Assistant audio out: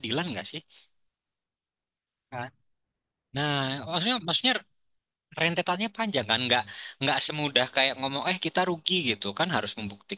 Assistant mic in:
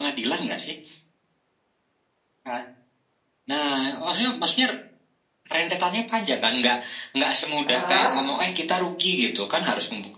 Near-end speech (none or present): present